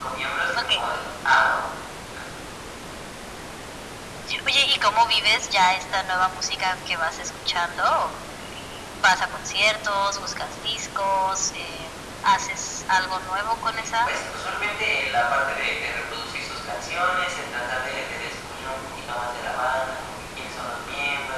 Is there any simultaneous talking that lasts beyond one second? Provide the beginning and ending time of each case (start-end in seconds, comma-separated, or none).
none